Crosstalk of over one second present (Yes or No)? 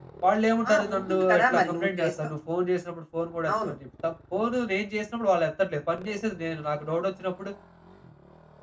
Yes